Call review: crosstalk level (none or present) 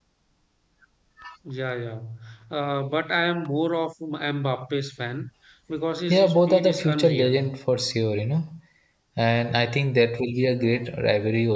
present